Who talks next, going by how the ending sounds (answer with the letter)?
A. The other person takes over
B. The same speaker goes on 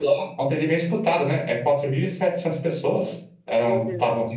B